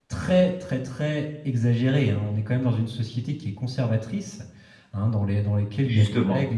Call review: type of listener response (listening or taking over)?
listening